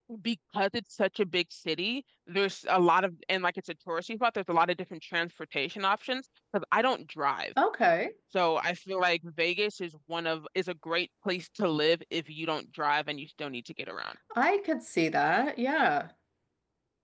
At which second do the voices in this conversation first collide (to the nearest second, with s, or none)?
none